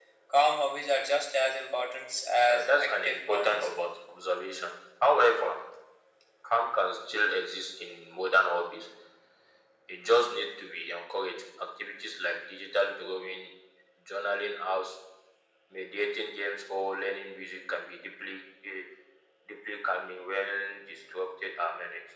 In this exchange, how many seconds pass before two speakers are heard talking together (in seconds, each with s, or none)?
2.5 s